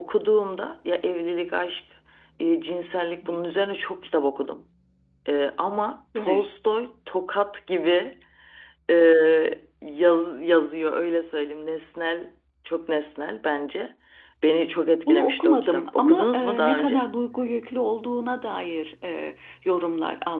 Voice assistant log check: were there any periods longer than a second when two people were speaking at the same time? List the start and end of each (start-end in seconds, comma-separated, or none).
15.1-17.0